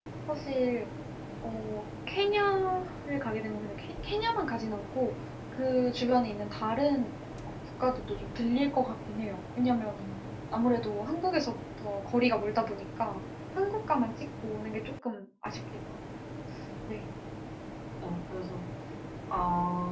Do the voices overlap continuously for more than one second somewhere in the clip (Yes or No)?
No